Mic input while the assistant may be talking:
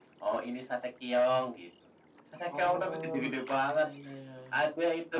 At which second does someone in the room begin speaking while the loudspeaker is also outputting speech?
none

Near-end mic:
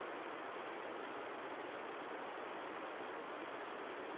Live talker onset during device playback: none

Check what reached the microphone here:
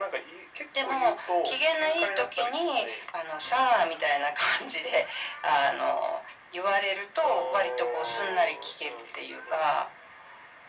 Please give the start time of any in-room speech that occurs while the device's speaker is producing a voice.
none

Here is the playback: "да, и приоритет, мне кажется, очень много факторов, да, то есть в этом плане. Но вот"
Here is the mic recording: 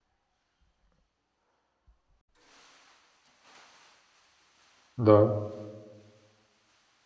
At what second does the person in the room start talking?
5.0 s

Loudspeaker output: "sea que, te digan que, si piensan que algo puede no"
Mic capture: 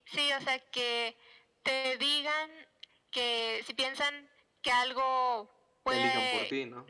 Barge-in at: 5.9 s

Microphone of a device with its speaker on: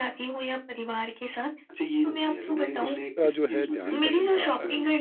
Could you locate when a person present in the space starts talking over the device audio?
2.8 s

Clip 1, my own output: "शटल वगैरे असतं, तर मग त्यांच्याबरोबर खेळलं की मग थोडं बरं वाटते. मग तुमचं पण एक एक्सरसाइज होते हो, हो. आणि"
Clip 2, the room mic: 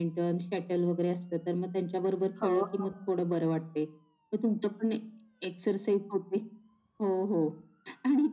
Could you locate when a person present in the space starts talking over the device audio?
2.4 s

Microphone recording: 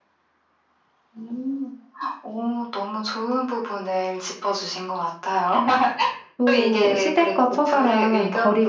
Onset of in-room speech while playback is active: 6.4 s

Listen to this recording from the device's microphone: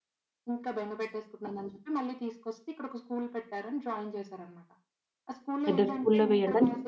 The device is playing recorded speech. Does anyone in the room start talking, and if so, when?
5.7 s

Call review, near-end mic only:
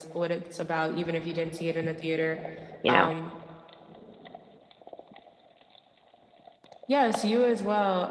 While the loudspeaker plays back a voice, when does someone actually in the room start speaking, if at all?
2.8 s

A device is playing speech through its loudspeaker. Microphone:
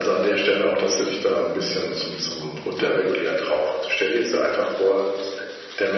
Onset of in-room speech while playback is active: none

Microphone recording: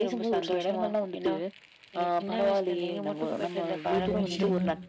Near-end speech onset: 3.9 s

